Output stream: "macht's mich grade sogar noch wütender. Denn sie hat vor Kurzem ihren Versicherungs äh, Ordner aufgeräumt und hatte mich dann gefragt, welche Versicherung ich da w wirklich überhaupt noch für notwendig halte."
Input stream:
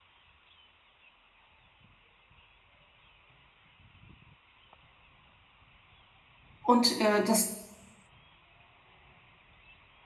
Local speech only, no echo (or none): und, äh, das